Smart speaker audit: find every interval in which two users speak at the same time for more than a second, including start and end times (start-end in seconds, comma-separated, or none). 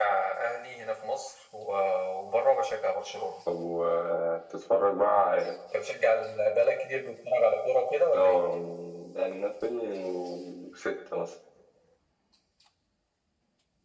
none